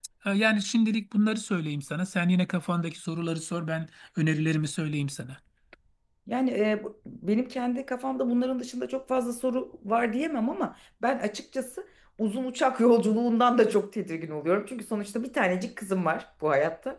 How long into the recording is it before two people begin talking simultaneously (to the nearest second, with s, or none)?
none